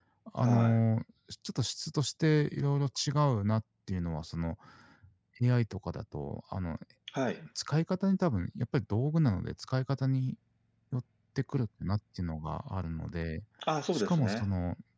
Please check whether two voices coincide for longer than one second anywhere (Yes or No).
No